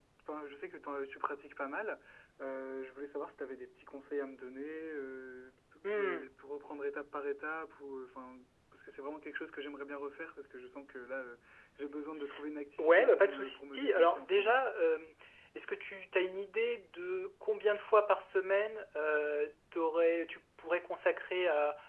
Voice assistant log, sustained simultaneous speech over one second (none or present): present